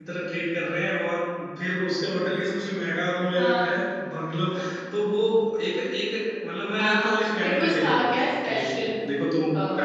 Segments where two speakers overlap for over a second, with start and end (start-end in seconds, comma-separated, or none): 6.8-8.7